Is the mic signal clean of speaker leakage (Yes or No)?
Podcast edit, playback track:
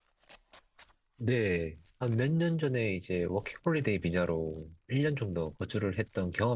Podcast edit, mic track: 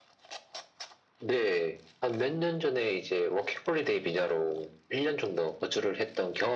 No